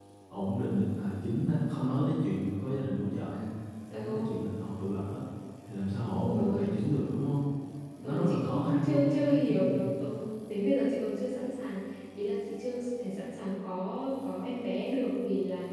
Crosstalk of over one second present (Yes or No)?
Yes